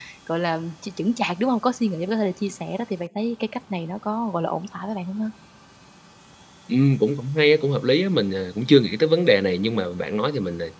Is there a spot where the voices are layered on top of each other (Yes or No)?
No